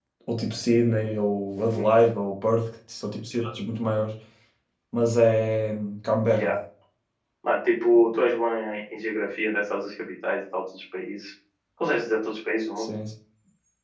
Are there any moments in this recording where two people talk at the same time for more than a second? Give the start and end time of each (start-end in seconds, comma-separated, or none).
none